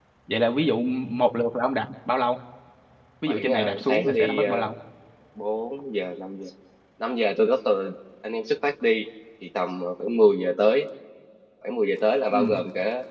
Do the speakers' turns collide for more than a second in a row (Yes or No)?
Yes